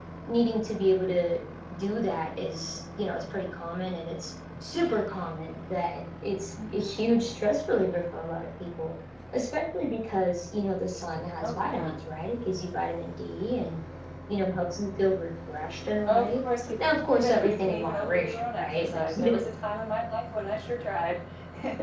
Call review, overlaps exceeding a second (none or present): present